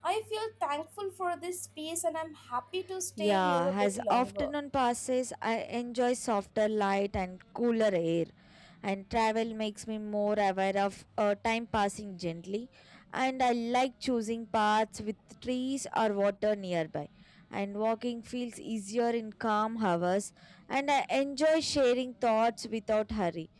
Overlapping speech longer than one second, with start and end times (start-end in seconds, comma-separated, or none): 3.2-4.5